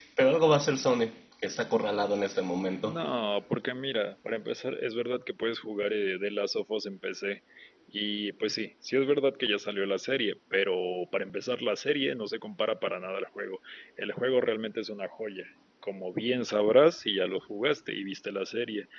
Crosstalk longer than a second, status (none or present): none